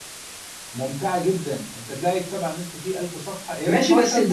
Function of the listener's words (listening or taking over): taking over